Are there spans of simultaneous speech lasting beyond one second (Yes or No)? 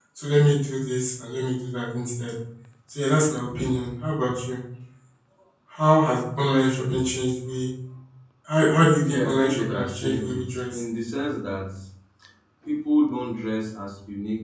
Yes